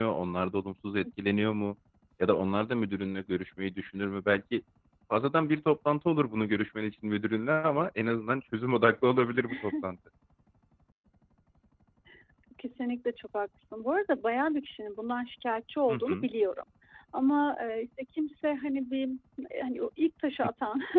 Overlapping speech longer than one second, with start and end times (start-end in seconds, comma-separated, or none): none